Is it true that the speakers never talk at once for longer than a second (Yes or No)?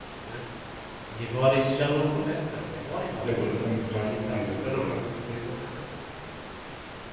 No